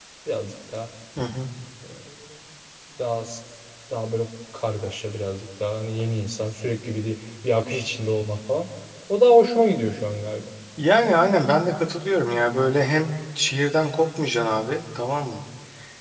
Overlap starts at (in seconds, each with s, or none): none